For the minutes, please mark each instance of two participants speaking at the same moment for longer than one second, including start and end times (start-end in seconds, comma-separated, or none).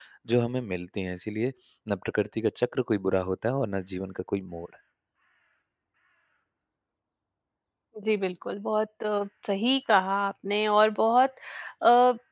none